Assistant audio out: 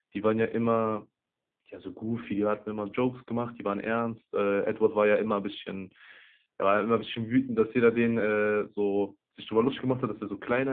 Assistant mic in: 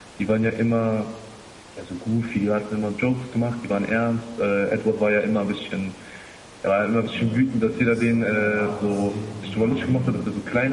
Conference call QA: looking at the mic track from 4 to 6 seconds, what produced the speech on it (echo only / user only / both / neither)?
echo only